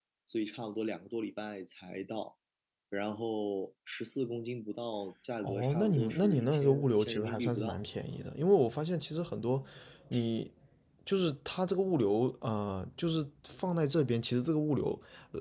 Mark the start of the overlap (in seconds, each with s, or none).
5.4 s